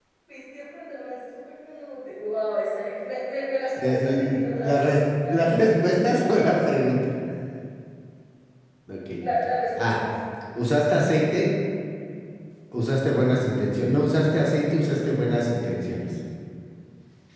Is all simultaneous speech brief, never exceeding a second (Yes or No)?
No